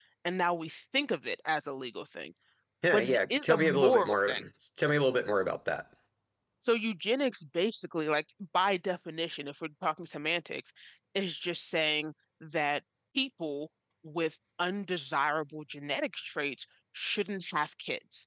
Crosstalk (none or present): present